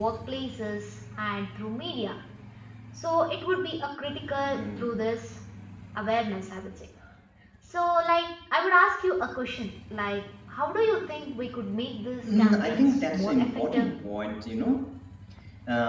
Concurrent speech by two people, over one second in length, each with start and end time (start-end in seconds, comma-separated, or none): 12.4-13.9